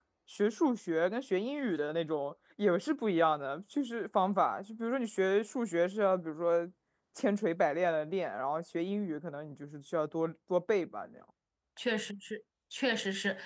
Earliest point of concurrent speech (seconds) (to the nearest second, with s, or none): none